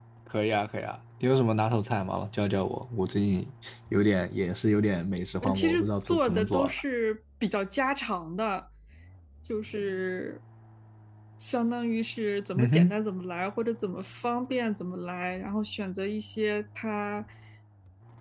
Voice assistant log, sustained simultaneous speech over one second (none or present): present